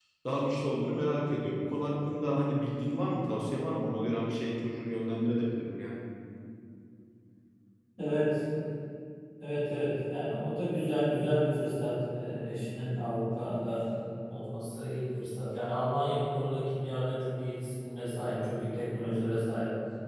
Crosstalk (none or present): none